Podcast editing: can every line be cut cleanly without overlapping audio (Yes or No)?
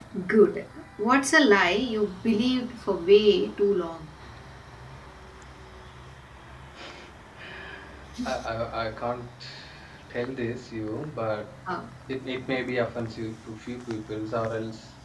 Yes